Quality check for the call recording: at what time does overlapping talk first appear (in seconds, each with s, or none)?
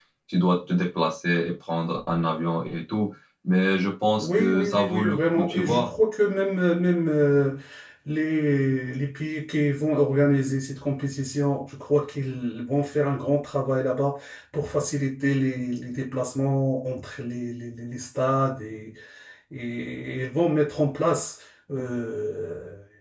4.2 s